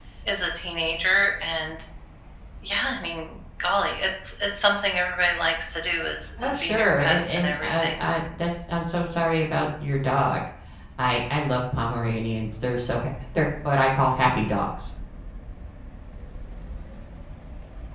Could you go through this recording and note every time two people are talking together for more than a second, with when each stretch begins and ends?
6.4-8.0

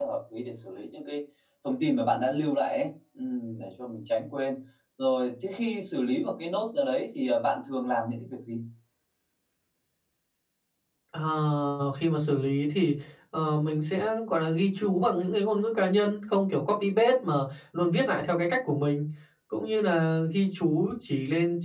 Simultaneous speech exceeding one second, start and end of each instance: none

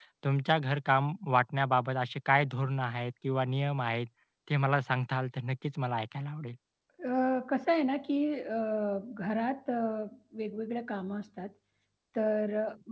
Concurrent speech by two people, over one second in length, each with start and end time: none

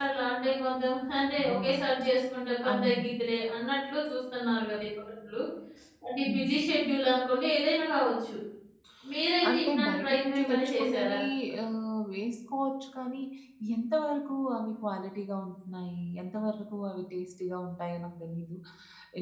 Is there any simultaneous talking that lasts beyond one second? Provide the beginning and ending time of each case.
9.5-11.2

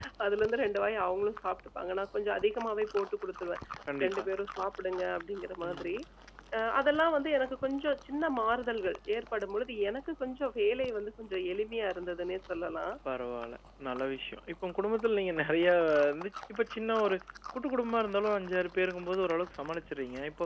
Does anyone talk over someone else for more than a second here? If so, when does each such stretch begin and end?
none

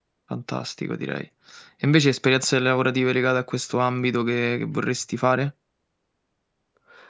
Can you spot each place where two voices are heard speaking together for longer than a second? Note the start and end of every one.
none

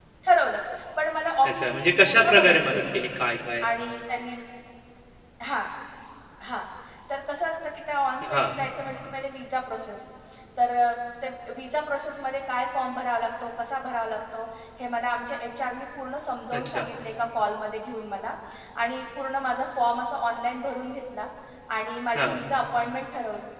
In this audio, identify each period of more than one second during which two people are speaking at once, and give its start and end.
1.5-2.9

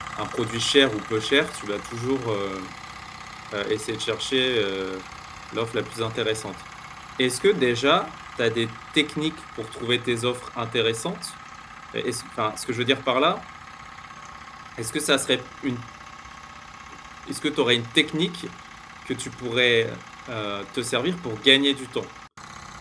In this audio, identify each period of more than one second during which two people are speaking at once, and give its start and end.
none

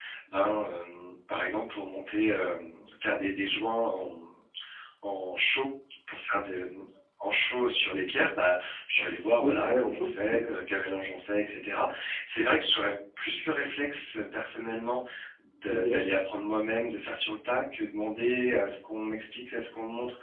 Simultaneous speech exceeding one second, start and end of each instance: 9.0-10.4

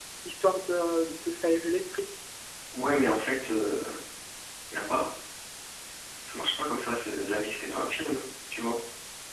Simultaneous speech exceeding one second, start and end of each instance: none

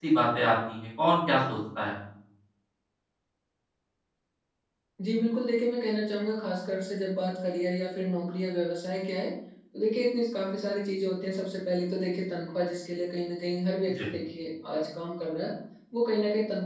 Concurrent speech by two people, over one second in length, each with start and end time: none

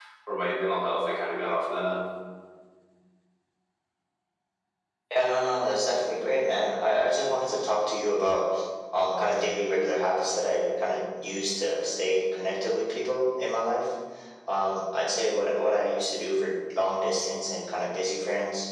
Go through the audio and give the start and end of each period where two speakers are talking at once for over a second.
none

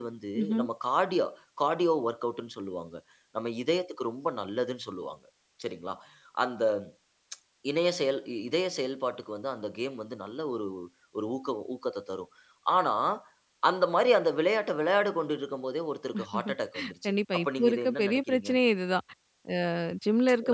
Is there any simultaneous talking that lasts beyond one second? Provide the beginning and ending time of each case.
17.0-18.5

